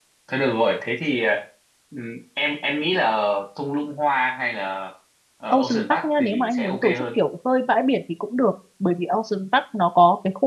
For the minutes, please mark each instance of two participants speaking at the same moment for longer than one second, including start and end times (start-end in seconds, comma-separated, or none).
5.5-6.9